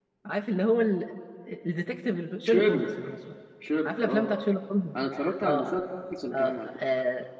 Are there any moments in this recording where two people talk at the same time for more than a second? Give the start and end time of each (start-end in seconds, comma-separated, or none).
none